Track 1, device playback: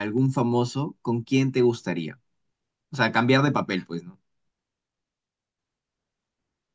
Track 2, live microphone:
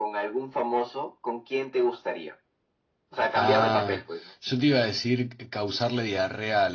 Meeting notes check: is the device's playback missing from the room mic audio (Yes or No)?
No